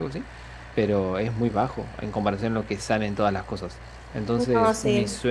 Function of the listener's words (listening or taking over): listening